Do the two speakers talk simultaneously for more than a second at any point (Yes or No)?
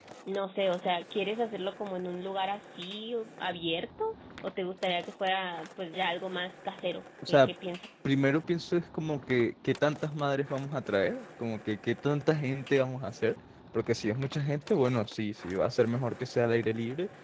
No